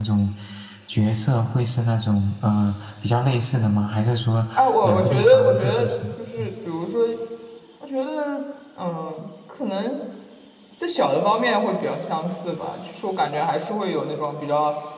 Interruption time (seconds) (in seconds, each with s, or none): 4.6 s